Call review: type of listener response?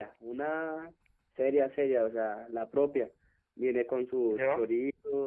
listening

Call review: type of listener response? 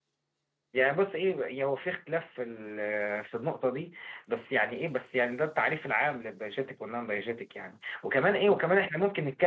listening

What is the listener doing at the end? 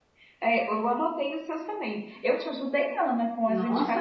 taking over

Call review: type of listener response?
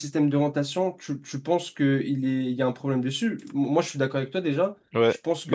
taking over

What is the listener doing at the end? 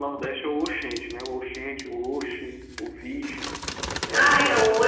taking over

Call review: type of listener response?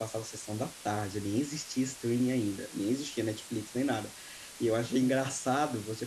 listening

